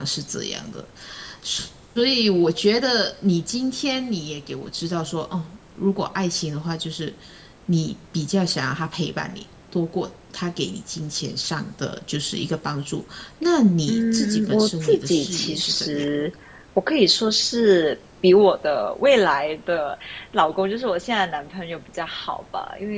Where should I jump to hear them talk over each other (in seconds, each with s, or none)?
13.9 s